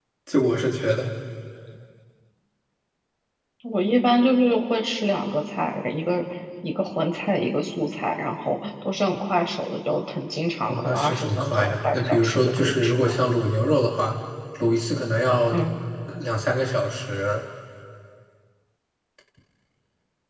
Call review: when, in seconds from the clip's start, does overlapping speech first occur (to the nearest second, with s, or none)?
11 s